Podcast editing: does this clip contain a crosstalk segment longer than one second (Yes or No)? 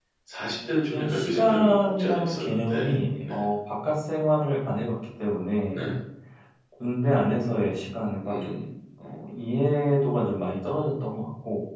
Yes